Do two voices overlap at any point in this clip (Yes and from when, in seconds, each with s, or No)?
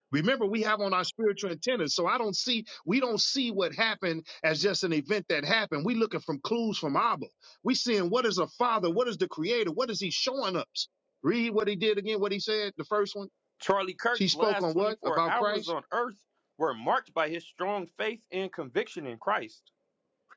Yes, from 14.1 s